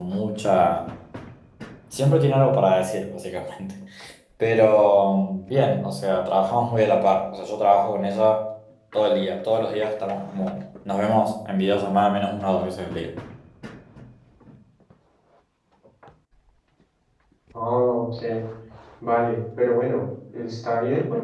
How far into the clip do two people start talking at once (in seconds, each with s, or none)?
none